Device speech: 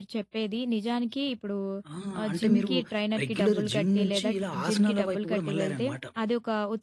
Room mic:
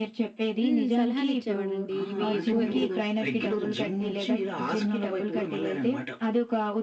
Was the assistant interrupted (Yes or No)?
Yes